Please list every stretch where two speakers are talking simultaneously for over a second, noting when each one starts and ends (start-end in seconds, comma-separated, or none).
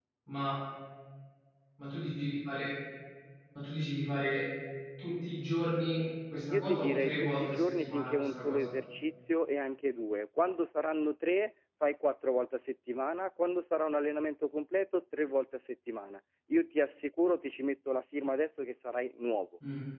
6.5-8.7